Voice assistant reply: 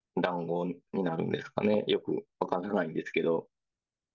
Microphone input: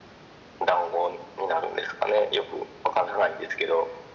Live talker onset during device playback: none

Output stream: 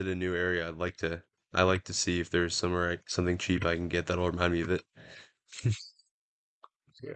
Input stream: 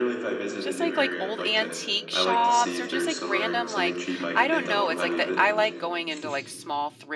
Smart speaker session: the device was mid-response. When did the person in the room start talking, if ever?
1 s

